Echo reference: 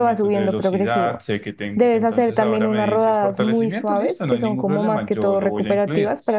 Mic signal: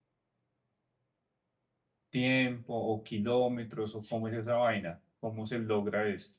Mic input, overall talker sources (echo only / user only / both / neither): user only